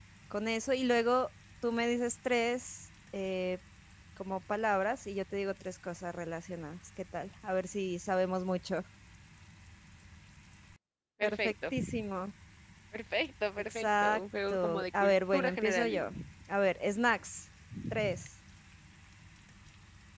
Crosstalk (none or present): present